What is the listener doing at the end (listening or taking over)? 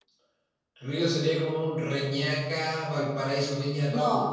taking over